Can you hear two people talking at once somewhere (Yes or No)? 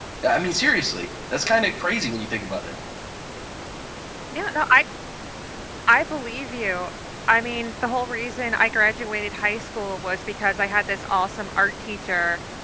No